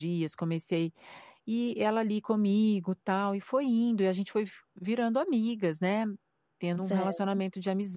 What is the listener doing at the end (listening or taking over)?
listening